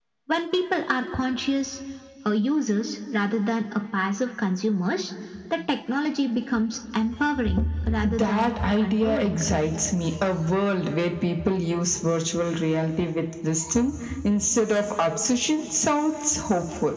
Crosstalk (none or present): present